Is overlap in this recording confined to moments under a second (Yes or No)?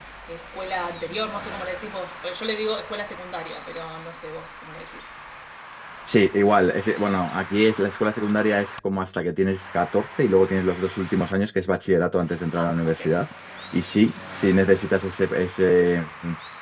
Yes